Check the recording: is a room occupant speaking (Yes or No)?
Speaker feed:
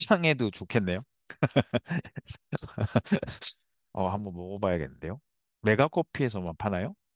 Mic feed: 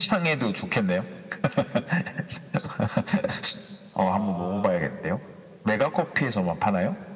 Yes